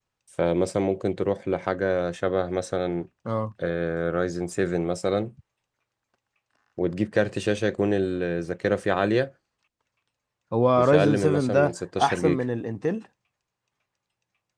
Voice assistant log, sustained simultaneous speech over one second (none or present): present